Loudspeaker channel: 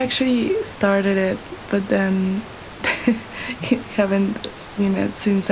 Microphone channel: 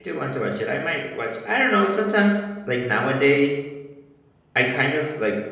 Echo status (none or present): none